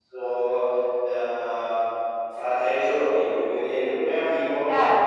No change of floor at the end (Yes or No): Yes